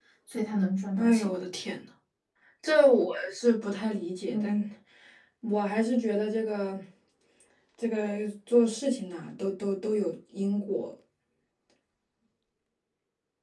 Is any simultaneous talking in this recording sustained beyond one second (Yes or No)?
No